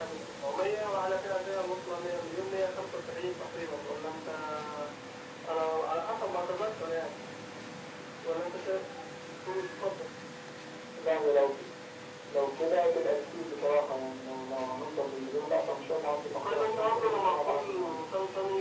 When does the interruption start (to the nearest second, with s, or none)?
16 s